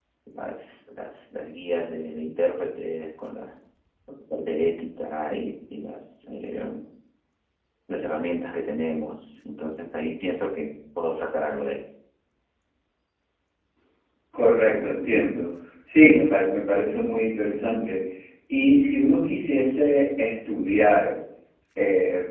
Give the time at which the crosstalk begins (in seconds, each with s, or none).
none